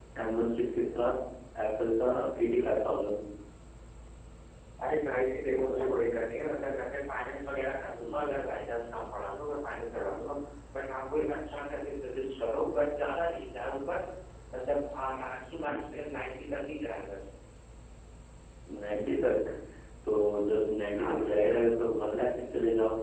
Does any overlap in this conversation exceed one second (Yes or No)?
No